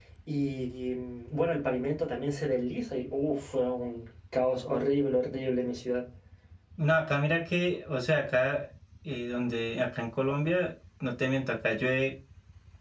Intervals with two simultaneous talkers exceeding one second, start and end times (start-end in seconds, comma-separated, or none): none